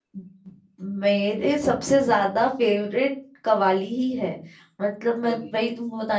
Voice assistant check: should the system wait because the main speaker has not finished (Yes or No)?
Yes